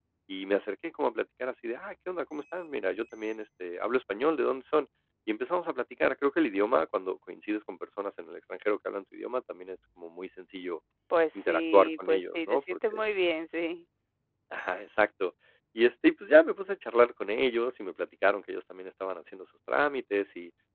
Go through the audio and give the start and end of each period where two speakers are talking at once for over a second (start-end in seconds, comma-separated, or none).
11.4-13.0